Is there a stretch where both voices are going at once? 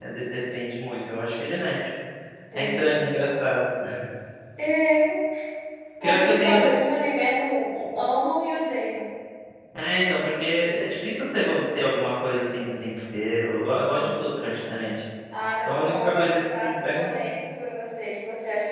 Yes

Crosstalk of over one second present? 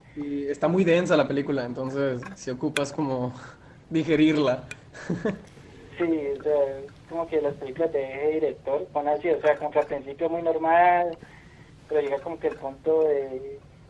No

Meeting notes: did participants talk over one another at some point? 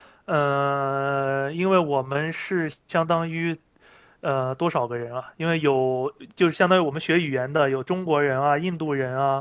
No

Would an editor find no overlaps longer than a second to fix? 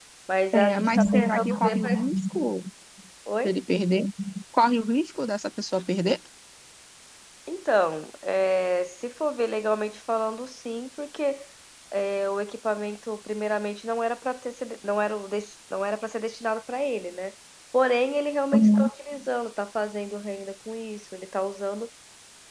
No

